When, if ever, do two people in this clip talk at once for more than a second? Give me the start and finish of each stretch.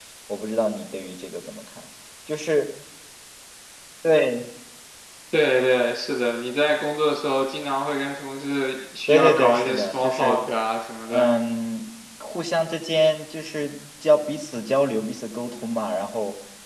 9.1-10.4

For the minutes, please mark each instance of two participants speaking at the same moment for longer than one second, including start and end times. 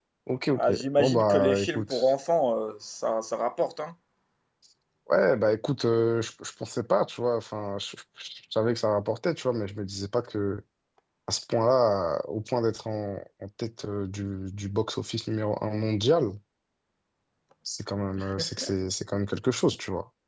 0.5-2.1

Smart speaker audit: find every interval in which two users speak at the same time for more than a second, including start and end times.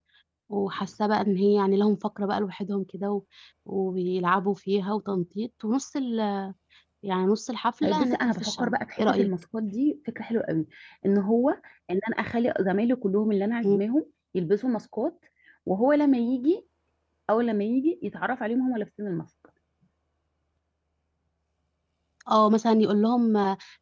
7.8-9.3

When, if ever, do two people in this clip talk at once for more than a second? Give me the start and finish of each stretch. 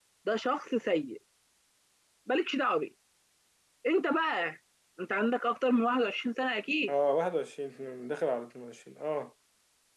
none

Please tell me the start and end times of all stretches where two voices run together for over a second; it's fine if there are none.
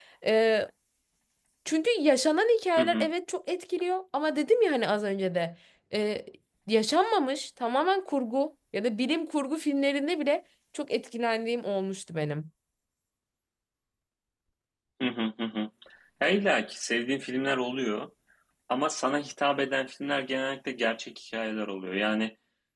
none

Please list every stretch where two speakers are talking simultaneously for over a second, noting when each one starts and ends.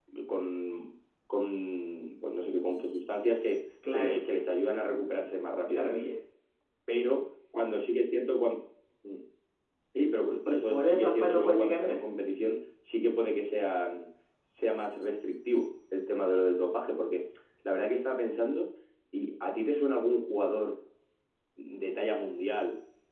10.5-12.0

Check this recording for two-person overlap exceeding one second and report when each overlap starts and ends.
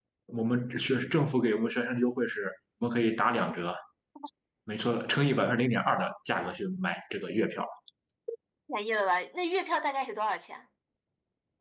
none

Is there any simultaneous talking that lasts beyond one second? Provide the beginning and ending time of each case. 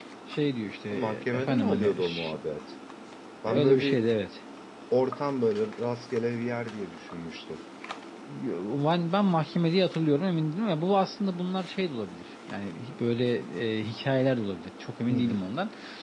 0.9-2.4

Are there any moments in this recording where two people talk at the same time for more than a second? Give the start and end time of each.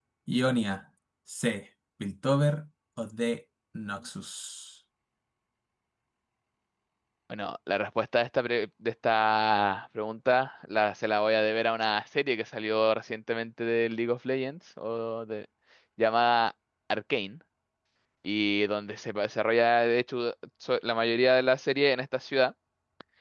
none

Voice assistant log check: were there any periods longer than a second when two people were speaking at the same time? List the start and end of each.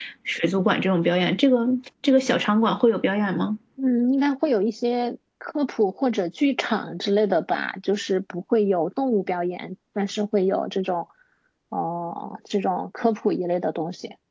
none

